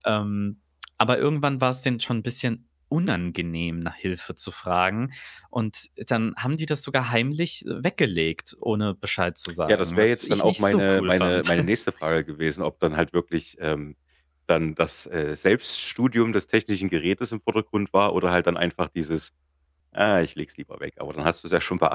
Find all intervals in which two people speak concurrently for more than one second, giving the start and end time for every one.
9.7-11.5

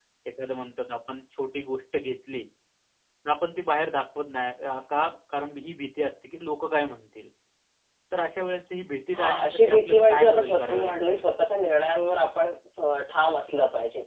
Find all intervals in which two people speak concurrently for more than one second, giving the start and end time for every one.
9.1-11.2

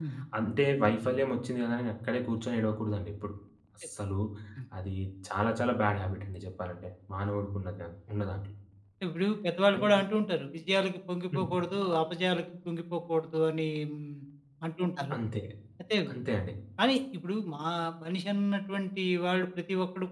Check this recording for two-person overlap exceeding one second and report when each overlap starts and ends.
none

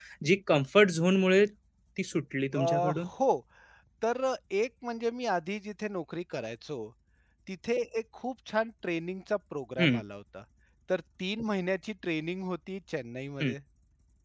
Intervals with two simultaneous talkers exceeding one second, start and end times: none

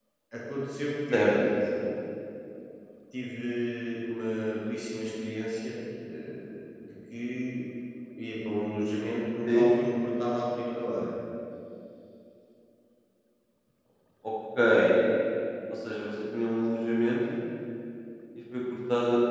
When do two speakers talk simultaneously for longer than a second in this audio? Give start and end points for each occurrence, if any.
none

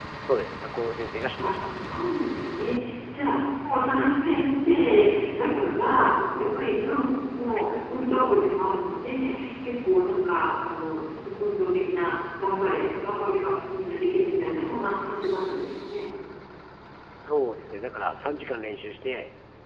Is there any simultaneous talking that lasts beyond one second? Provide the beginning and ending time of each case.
none

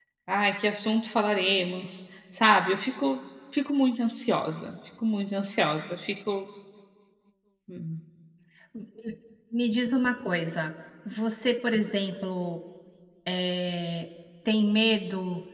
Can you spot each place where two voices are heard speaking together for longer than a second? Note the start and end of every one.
none

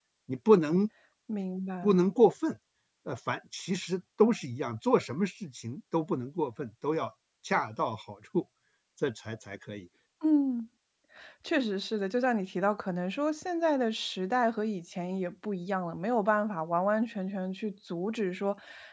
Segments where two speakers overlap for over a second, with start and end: none

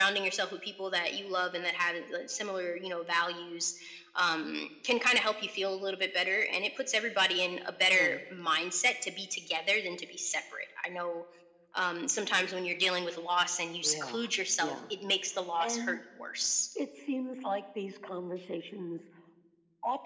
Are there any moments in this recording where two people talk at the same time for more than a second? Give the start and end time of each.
none

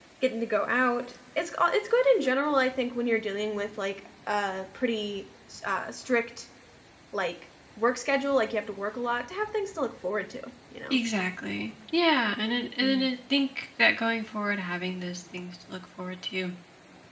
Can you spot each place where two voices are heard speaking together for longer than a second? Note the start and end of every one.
none

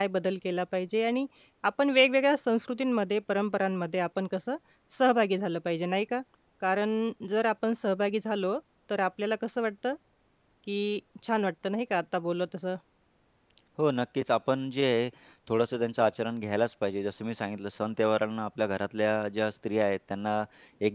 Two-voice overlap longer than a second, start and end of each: none

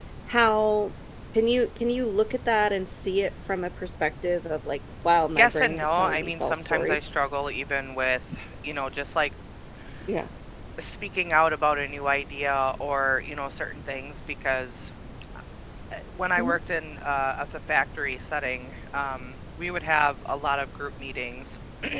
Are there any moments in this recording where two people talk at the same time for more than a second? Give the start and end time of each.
5.4-7.1

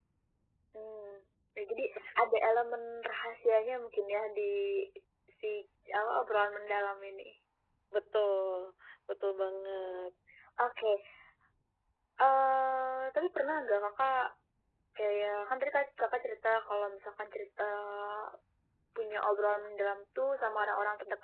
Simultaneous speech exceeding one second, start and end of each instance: none

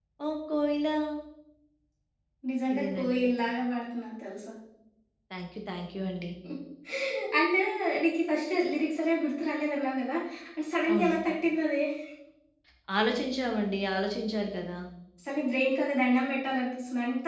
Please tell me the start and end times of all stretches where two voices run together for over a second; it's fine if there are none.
none

